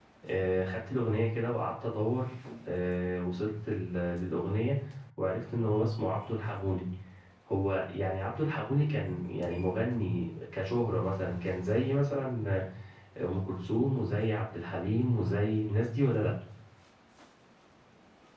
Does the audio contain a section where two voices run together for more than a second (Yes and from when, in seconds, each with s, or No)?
No